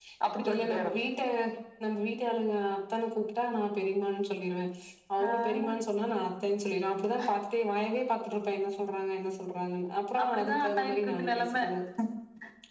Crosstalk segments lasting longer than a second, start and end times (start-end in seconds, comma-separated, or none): 10.2-11.5